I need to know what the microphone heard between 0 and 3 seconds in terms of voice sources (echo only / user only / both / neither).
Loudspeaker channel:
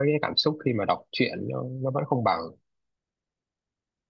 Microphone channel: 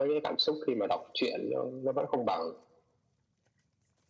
echo only